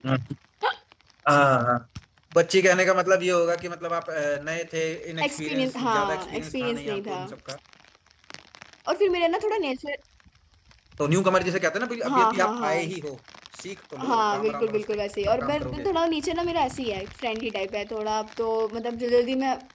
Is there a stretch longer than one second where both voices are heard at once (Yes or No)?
Yes